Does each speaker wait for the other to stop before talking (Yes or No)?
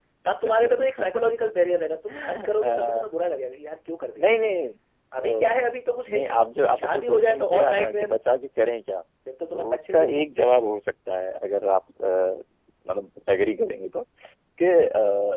No